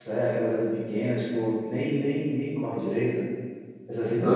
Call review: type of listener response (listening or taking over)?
taking over